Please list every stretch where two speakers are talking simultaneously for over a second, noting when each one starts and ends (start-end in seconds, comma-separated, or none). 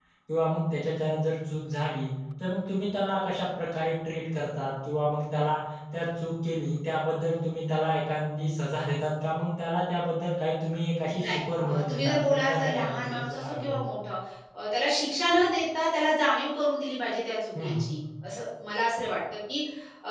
11.1-13.9